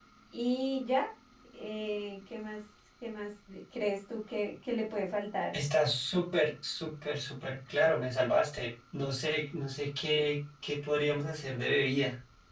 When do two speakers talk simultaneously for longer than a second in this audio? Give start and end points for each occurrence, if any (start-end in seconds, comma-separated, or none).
none